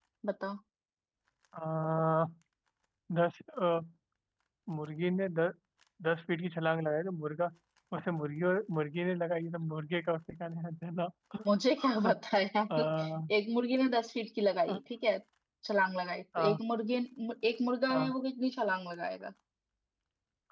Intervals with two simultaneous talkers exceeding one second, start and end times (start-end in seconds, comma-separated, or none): none